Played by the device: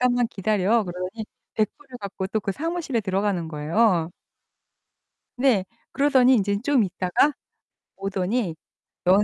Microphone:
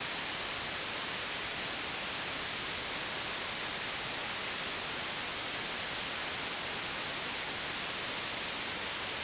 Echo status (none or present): none